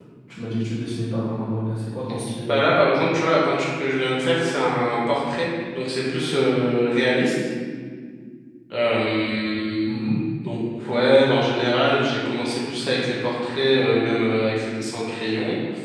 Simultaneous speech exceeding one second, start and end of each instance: none

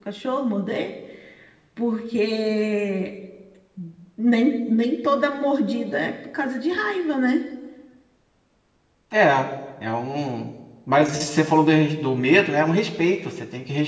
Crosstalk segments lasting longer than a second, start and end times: none

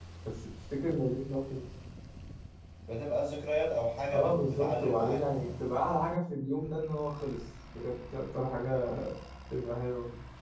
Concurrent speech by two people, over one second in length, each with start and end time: 4.1-5.7

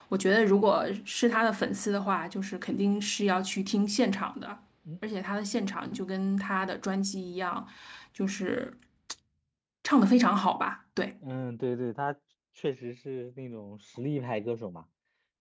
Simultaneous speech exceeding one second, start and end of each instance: none

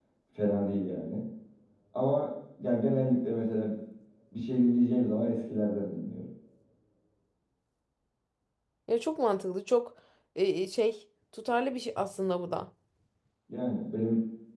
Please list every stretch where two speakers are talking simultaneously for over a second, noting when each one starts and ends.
none

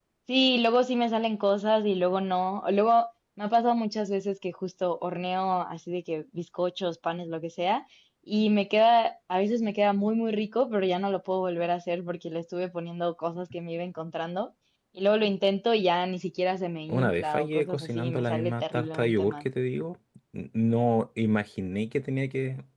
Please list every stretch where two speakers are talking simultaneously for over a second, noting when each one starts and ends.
16.9-19.4

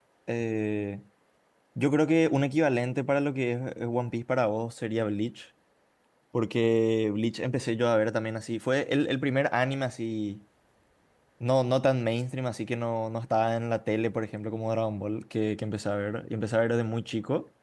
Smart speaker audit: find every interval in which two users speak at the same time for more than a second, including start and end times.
none

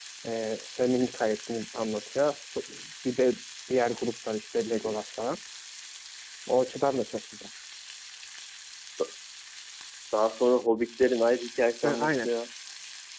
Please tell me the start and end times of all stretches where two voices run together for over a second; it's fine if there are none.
none

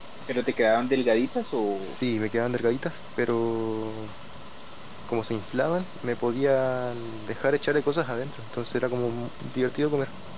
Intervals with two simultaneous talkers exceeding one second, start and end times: none

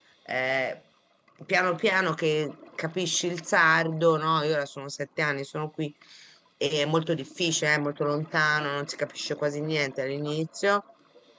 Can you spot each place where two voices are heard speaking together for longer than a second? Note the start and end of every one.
none

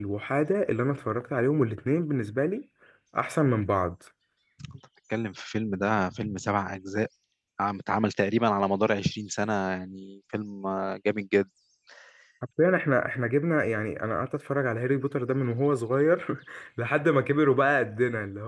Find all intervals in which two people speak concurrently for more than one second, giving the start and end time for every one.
none

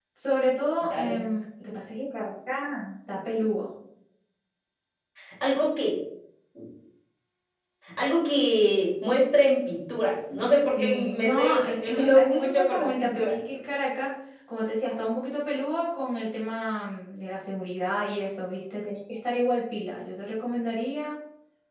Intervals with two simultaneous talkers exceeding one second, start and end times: 10.8-13.4

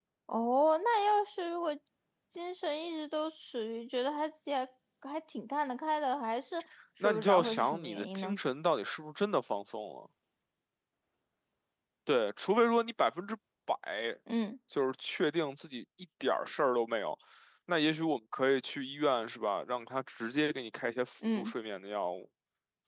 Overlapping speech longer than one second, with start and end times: 7.0-8.4

